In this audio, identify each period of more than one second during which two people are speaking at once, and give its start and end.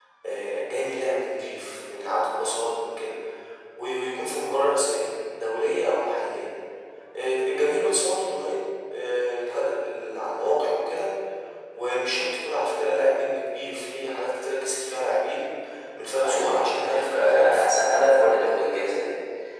16.2-17.6

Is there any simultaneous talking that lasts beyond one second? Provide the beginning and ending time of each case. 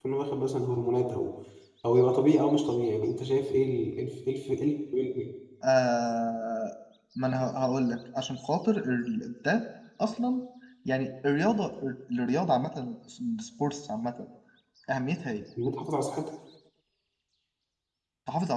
none

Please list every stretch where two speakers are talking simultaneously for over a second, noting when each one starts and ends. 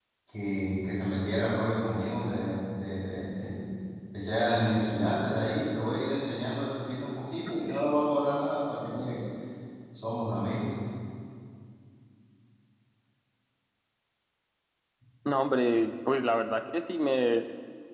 none

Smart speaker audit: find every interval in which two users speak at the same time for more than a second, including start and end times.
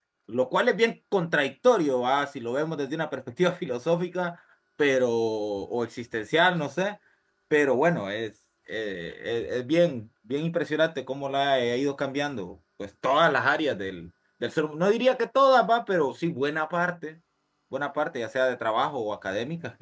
none

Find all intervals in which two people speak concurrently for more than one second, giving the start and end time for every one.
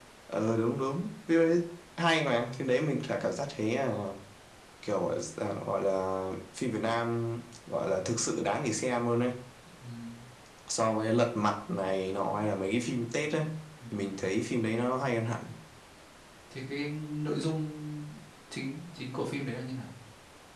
none

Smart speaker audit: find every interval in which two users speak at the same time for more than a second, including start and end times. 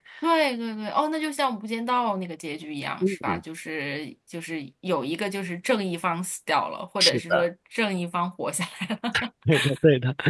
none

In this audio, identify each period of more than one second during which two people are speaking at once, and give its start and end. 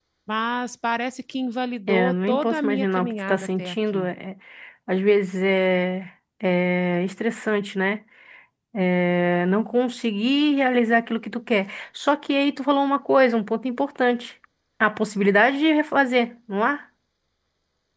1.9-4.1

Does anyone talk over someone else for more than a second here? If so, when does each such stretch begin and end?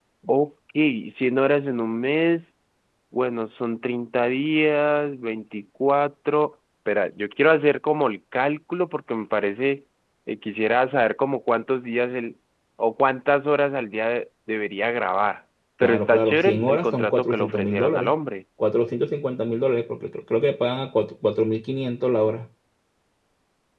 15.8-18.1

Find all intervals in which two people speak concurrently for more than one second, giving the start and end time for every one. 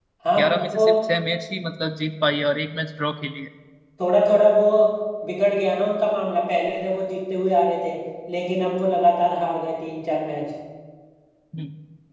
none

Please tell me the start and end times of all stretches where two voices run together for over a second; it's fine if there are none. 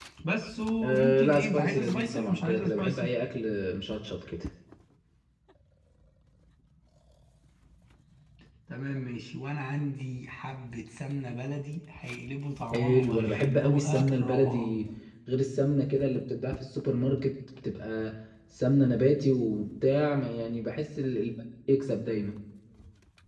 0.8-3.1, 12.7-14.7

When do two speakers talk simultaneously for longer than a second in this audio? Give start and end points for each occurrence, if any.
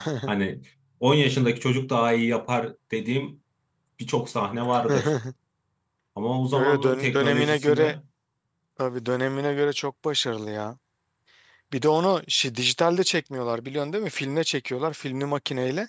6.5-7.9

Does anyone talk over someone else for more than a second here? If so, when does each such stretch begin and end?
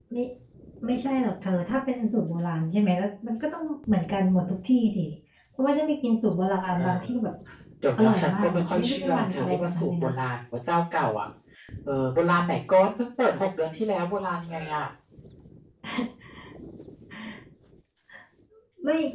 8.0-10.1

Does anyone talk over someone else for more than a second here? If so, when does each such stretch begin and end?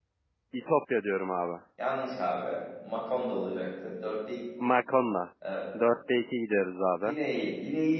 none

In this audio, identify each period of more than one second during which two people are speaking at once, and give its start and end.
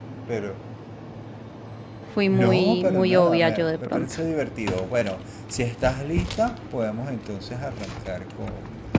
2.3-4.1

